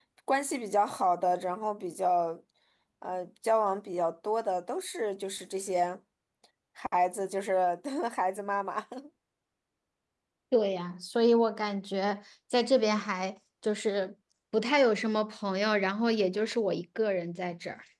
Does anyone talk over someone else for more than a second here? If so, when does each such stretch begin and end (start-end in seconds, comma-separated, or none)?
none